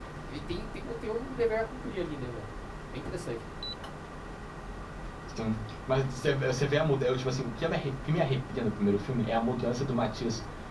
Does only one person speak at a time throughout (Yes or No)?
Yes